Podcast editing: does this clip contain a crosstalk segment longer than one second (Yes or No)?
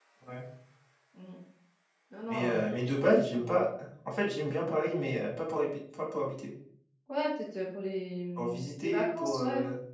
Yes